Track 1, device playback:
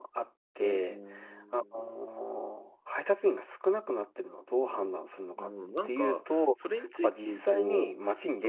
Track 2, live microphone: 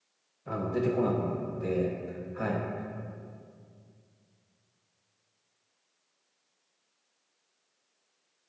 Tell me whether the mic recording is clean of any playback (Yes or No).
Yes